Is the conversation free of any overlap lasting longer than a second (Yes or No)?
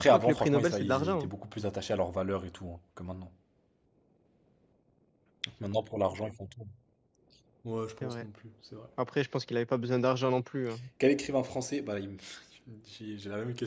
No